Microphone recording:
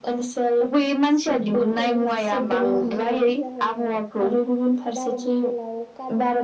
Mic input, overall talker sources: both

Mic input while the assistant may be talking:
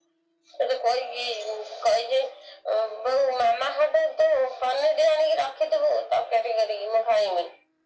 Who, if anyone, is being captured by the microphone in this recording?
echo only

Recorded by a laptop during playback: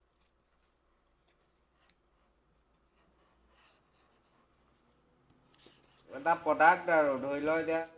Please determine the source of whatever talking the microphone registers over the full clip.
user only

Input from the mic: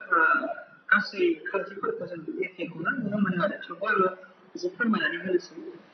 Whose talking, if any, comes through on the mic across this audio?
echo only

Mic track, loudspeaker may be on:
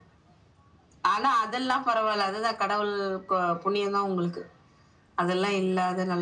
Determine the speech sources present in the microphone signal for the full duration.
echo only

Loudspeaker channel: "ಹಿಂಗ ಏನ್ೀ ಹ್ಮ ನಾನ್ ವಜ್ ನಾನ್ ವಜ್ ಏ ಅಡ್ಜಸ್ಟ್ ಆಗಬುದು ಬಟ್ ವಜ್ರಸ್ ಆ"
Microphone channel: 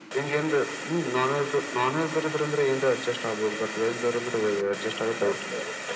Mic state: echo only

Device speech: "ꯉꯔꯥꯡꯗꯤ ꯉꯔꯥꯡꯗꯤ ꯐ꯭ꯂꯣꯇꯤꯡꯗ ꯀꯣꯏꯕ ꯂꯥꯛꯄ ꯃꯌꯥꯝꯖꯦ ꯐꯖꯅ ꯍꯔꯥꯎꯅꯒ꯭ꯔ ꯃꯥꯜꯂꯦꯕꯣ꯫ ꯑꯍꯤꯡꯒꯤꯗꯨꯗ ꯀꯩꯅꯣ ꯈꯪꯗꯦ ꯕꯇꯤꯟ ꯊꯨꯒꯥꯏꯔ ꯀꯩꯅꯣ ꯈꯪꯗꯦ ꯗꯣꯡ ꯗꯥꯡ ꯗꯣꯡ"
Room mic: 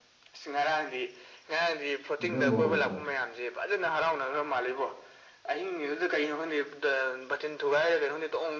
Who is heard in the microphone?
both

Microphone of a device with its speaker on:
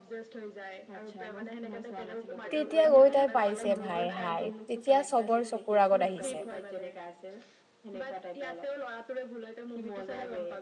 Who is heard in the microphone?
both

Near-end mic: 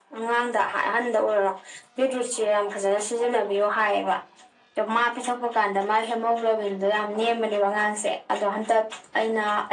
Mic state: echo only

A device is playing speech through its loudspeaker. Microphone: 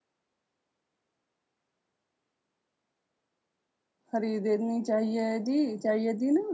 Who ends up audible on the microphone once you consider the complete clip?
user only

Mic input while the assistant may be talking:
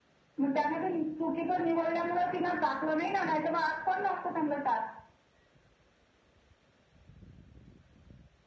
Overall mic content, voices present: echo only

